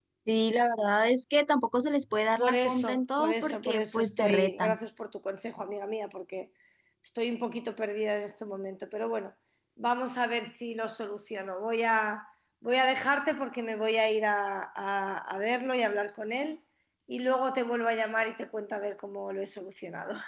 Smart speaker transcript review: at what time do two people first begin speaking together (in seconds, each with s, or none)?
2.4 s